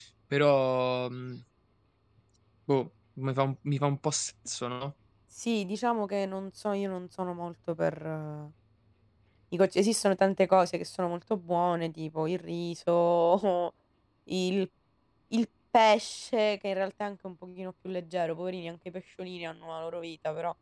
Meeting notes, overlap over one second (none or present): none